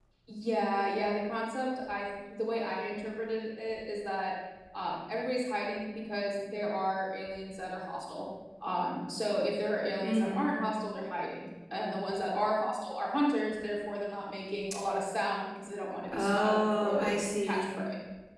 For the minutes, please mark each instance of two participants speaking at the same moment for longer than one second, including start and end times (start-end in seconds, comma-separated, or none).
16.1-17.8